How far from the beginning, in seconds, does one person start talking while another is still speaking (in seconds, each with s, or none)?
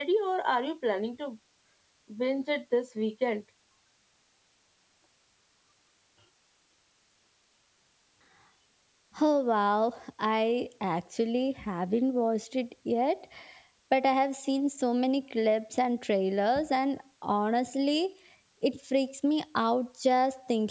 none